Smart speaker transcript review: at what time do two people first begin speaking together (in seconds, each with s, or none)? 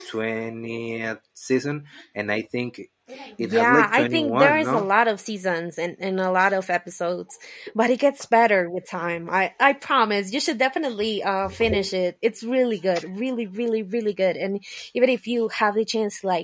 3.4 s